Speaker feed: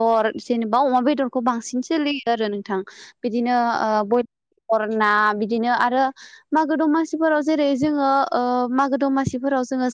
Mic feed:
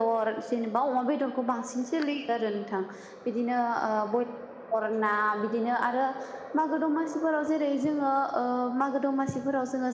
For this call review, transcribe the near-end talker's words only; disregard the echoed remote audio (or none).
none